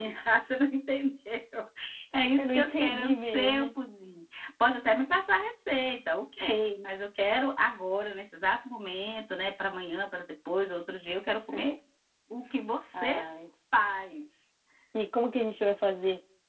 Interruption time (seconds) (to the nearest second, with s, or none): 2 s